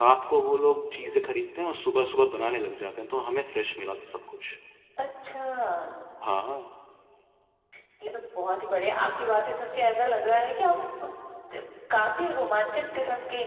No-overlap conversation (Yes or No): Yes